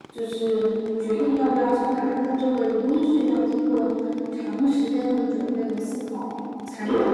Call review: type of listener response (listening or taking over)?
listening